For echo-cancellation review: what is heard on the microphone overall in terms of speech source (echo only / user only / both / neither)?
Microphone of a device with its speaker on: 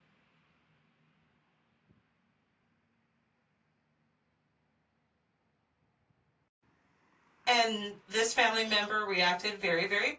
user only